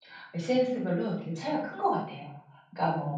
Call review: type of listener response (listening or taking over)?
listening